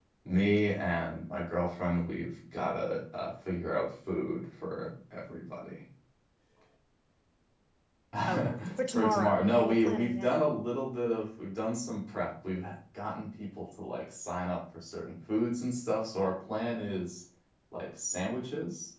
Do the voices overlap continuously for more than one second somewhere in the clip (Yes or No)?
Yes